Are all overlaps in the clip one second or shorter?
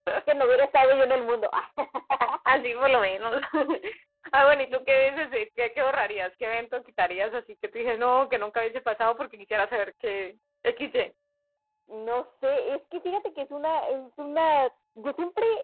Yes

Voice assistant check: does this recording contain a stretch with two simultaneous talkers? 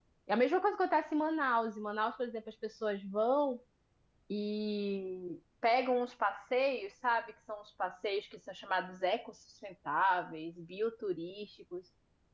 No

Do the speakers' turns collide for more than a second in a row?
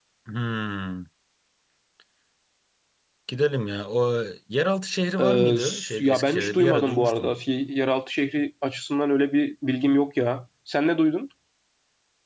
Yes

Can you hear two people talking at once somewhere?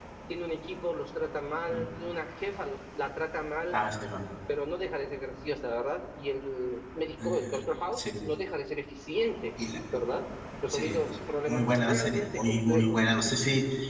Yes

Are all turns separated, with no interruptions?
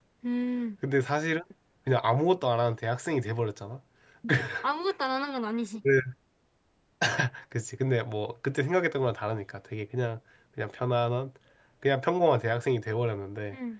Yes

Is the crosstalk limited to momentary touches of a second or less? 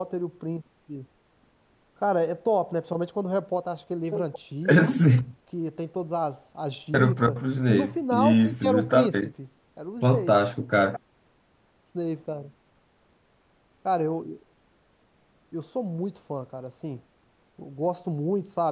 No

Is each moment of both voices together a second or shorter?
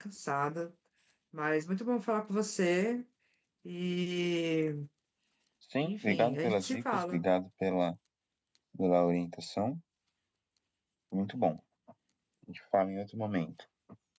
No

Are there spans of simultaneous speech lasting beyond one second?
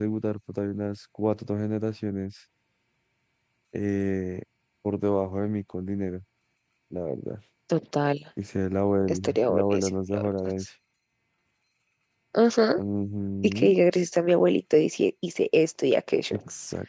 Yes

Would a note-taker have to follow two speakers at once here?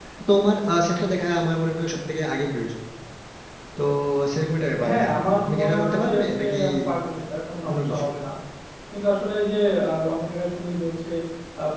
Yes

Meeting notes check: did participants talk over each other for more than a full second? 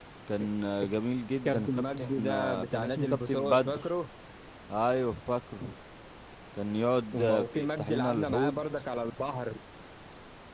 Yes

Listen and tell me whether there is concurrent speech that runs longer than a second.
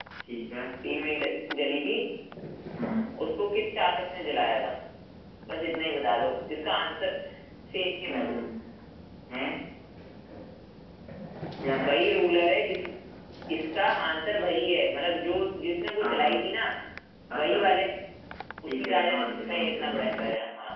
Yes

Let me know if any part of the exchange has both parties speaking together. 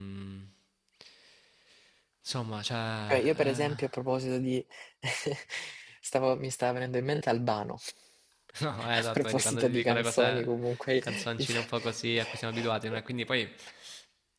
Yes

